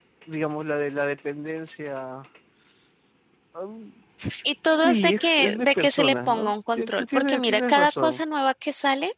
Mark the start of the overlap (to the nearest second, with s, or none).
5 s